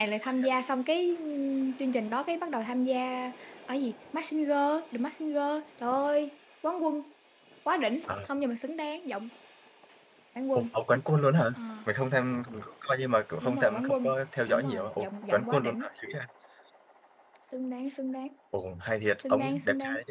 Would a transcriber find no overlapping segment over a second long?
No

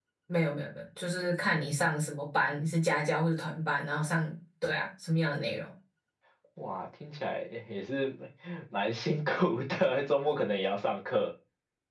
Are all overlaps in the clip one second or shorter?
Yes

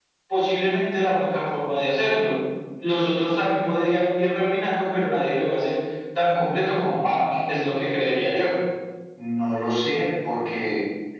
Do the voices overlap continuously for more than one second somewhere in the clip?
No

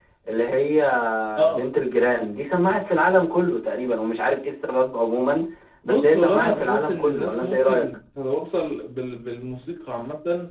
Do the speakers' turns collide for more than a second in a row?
Yes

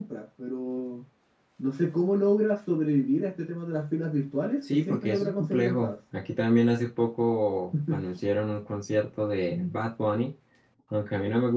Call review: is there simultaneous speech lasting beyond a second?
Yes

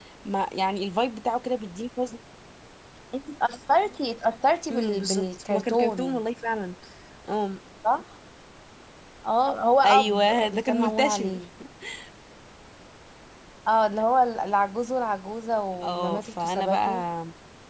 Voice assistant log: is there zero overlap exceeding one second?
No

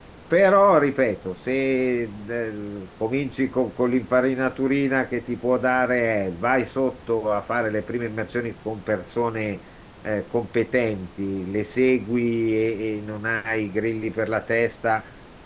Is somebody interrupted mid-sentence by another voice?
No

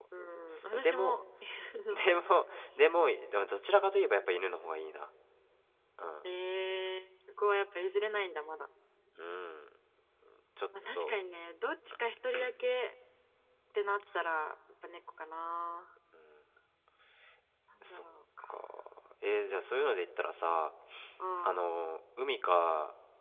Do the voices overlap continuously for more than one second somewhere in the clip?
No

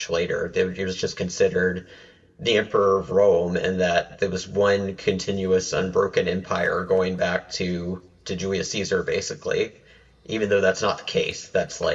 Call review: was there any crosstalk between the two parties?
No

